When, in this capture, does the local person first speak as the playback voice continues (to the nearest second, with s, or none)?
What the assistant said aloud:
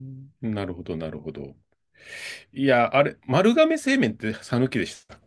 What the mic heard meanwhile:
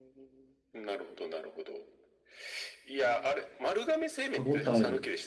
4 s